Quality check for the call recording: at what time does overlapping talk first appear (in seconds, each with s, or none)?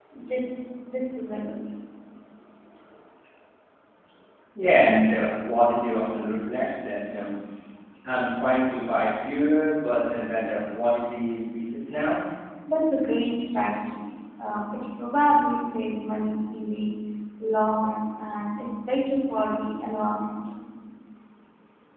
none